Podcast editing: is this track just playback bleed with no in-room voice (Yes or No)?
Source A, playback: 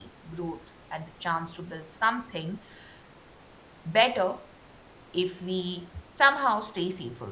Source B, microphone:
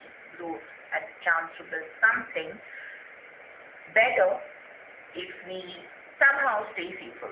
Yes